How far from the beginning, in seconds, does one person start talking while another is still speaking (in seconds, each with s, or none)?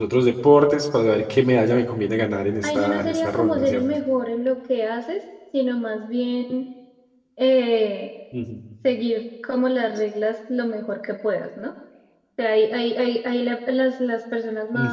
2.6 s